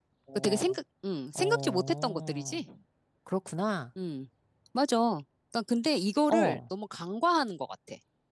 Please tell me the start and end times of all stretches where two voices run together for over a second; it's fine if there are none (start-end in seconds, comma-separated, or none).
1.4-2.6